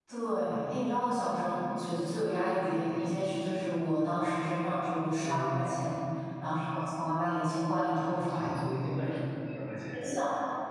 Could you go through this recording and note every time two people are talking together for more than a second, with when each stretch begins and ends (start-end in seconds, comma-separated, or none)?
none